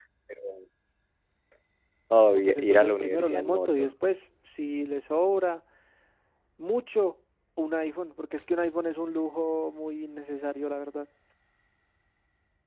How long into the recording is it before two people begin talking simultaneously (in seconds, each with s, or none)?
2.3 s